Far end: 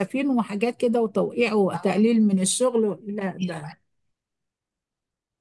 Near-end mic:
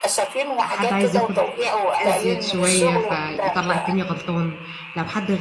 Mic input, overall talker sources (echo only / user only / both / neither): both